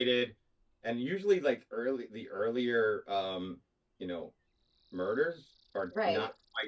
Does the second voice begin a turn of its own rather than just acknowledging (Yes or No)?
No